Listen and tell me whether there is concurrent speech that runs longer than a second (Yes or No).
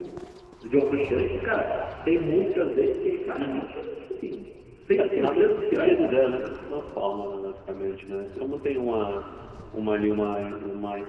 Yes